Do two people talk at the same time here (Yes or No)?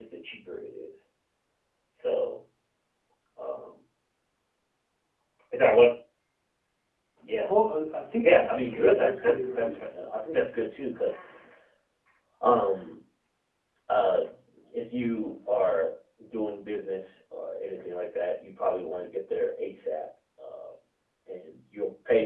Yes